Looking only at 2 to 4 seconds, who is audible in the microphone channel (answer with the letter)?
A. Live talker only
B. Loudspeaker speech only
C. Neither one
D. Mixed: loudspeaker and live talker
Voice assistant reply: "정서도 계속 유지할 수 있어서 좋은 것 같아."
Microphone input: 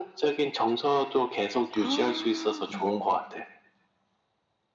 D